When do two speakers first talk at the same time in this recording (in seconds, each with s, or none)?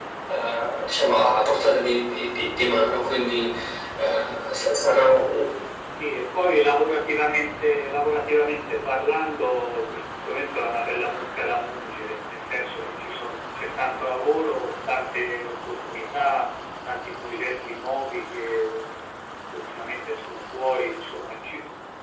none